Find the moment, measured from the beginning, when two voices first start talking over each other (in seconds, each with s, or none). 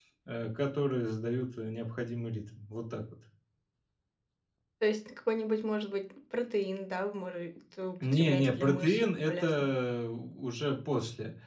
8.0 s